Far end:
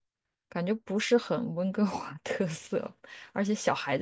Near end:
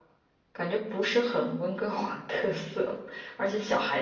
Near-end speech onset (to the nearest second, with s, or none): none